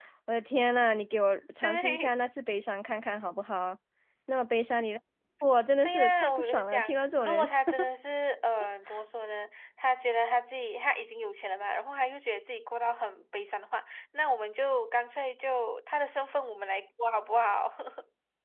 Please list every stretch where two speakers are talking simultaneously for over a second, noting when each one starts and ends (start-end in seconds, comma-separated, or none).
5.8-7.4